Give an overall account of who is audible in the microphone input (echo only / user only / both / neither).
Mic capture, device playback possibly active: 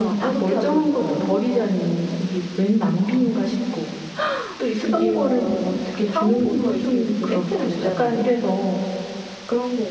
both